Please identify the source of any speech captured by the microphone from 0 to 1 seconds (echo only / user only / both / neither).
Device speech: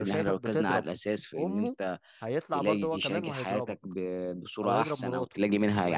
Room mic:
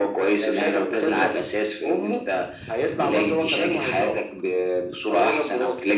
echo only